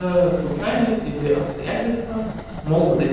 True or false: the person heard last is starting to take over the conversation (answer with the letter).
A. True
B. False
A